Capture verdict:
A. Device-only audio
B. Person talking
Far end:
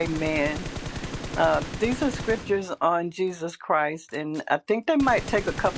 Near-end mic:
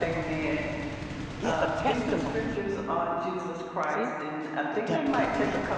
B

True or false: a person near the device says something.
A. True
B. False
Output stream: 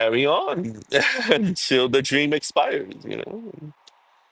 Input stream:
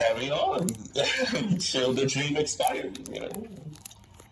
B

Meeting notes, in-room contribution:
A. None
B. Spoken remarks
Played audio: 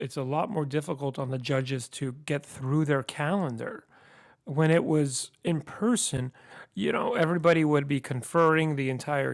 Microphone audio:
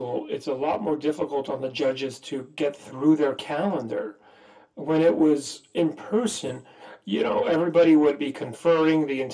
A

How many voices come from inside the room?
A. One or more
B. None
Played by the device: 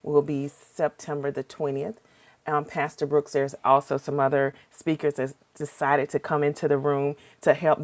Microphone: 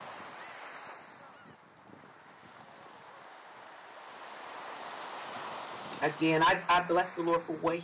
A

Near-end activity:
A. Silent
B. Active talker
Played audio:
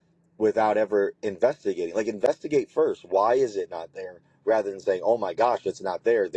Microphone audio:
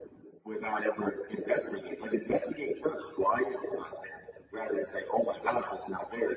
A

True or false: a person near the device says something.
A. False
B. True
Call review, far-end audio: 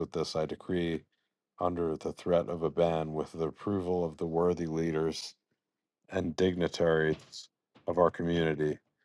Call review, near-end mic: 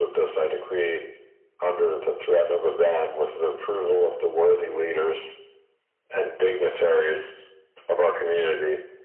A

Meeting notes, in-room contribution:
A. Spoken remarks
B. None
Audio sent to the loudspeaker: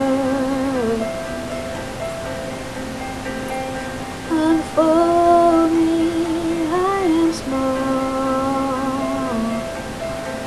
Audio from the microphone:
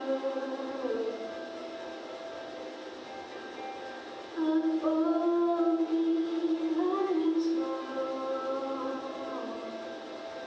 B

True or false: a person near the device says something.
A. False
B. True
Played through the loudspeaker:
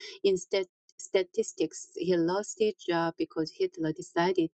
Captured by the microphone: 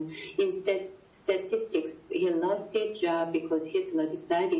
A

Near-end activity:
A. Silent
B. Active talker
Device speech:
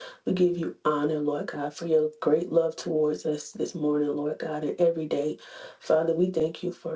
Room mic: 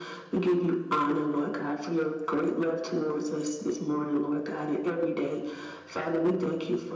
A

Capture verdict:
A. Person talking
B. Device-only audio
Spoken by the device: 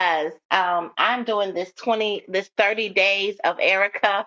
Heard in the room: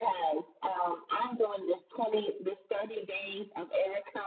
B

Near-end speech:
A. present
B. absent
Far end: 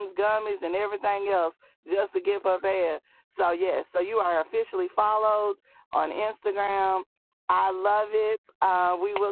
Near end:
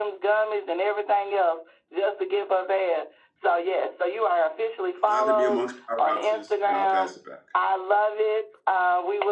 A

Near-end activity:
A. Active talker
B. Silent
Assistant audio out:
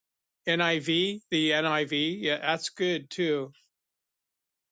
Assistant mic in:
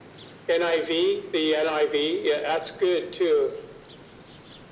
B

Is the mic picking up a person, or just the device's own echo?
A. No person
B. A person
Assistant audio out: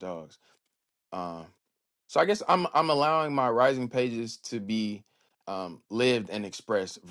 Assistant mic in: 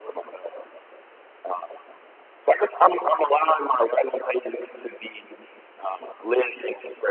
A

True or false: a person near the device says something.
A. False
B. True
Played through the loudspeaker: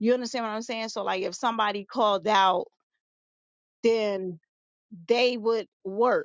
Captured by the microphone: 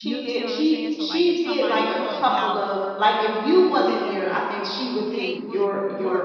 B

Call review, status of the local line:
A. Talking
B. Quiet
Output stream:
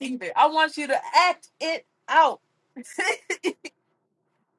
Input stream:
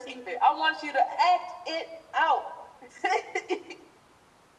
B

